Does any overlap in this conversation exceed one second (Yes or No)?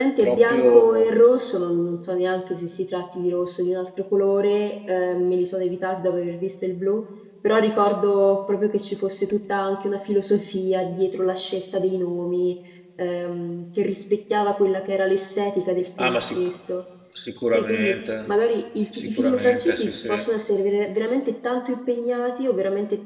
Yes